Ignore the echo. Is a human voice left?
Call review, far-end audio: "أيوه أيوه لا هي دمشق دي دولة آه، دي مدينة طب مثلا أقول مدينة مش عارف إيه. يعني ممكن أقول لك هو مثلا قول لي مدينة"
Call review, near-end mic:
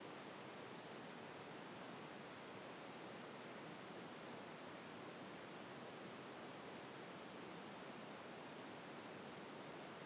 No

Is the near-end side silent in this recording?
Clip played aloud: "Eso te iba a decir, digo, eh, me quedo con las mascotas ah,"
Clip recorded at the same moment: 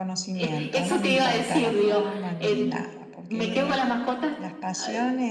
No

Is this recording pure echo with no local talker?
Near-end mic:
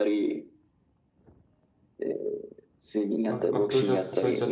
No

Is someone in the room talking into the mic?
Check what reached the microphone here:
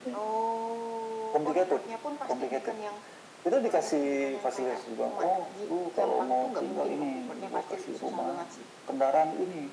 No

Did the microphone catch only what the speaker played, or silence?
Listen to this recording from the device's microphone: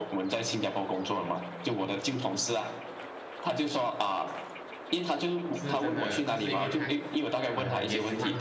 No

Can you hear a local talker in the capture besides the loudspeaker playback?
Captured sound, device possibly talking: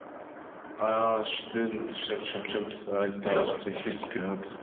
Yes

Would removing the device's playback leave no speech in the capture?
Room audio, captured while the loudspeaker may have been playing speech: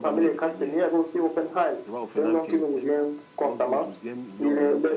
No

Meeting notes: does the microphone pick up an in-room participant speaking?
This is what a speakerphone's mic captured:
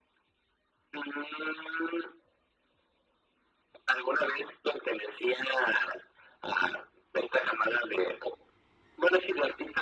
No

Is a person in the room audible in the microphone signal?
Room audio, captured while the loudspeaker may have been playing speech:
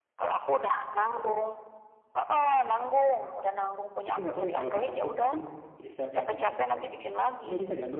Yes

